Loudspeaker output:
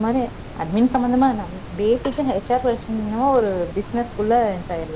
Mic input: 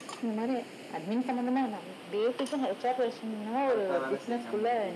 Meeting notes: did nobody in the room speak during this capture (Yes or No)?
No